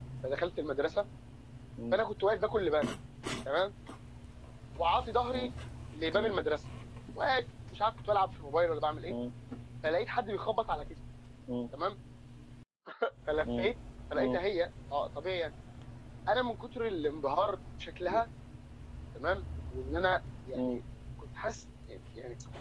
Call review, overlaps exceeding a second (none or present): none